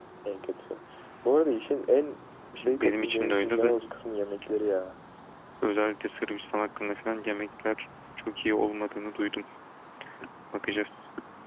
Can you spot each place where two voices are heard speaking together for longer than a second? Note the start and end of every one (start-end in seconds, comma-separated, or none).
2.6-3.8